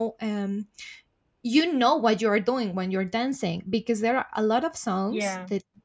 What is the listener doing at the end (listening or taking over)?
listening